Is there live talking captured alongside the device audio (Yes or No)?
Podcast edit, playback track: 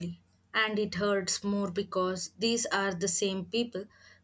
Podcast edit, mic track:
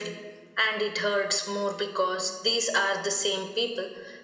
No